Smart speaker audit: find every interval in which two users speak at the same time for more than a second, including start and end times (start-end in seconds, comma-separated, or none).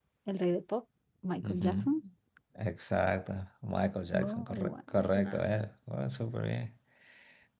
4.1-5.4